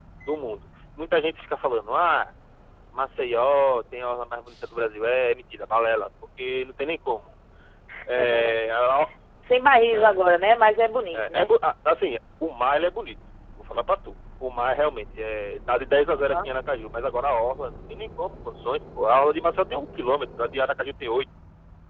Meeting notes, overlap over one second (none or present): none